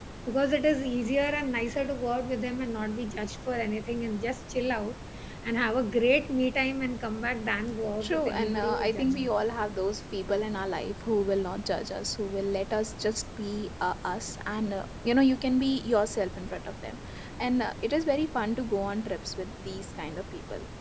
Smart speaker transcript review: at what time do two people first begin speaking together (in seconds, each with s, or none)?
8.0 s